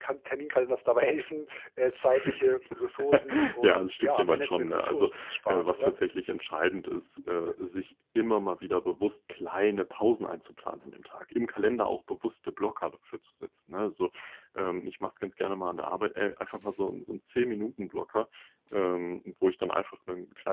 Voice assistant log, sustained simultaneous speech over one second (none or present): present